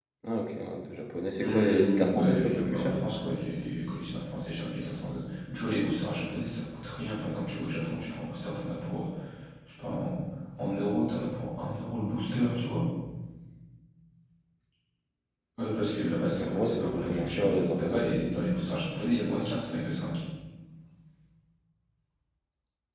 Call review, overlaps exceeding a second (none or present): present